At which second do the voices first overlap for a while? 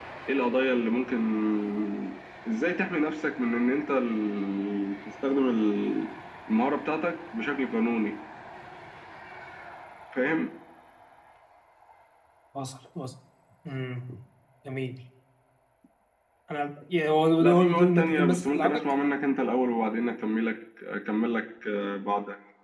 17.4 s

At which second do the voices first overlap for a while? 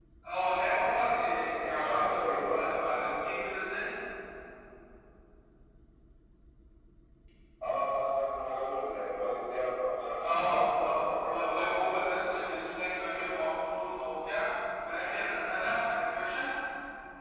0.7 s

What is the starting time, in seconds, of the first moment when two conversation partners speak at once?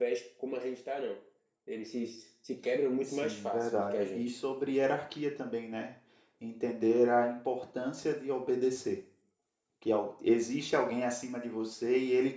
3.1 s

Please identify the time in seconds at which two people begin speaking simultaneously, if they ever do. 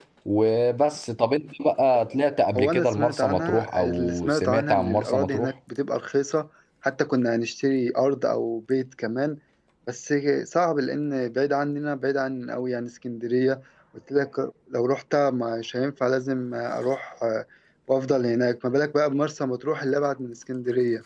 2.6 s

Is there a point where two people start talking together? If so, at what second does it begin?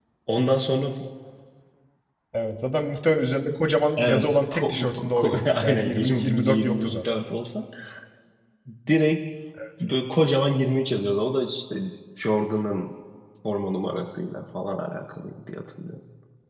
4.0 s

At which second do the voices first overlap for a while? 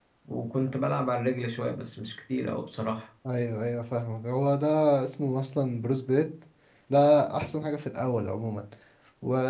none

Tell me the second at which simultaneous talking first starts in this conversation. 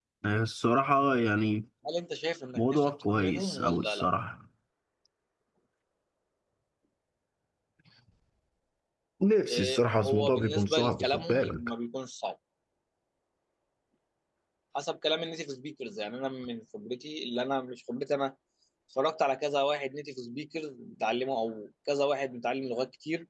2.6 s

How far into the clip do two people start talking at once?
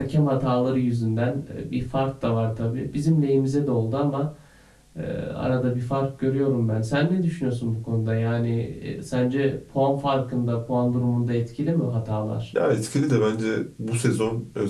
none

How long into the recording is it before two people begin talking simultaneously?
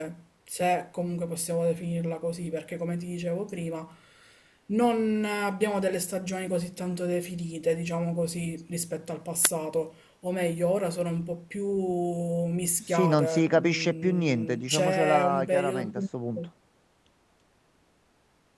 12.8 s

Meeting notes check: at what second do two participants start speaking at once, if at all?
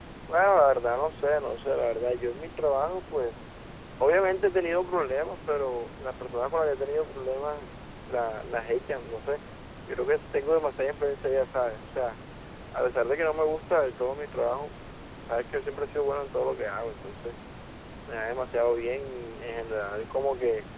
none

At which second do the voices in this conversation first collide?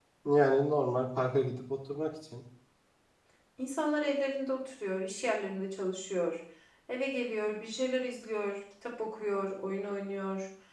none

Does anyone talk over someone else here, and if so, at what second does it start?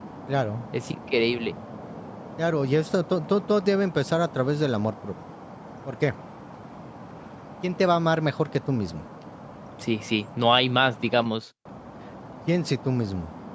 none

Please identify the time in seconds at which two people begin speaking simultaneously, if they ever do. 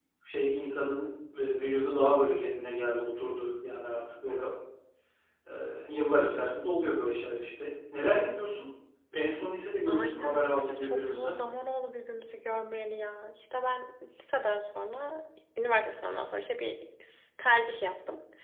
9.8 s

